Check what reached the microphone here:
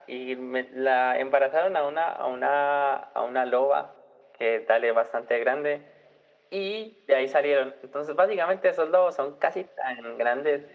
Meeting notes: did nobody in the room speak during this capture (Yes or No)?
Yes